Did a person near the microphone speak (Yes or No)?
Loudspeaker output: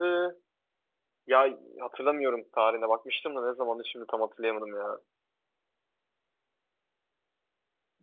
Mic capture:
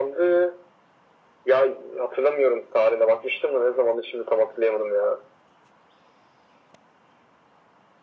No